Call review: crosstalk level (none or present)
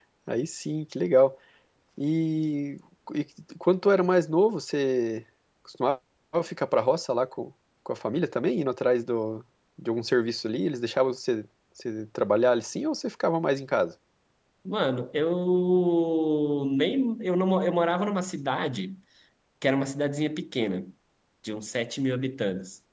none